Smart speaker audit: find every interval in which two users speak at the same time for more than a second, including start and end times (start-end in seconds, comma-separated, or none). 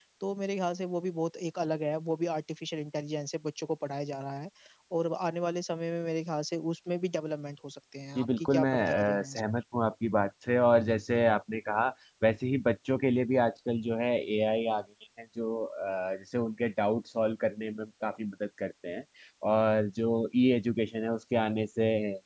8.2-9.4